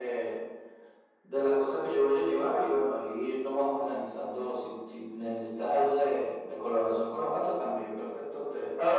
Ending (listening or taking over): taking over